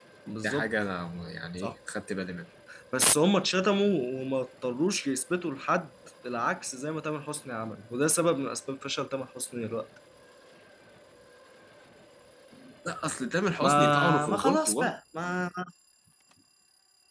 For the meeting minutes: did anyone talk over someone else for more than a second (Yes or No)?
Yes